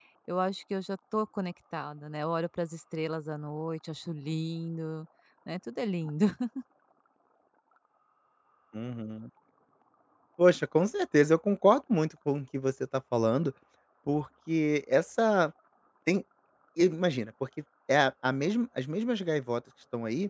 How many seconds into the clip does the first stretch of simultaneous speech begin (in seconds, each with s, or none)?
none